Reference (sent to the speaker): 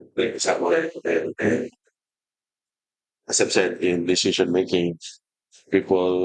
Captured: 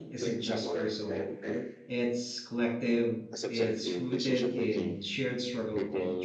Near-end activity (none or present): present